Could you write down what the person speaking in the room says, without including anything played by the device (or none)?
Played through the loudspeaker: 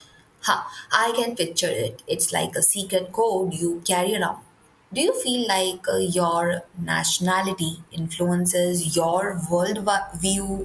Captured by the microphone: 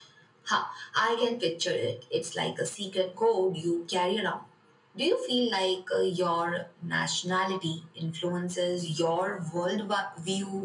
none